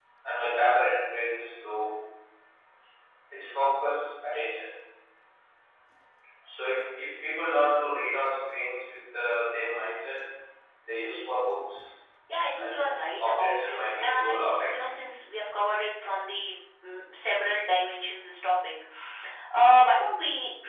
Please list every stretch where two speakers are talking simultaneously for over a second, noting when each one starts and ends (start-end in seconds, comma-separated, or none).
12.6-14.9